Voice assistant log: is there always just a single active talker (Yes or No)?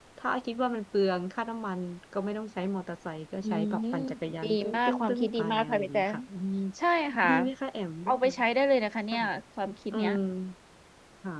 No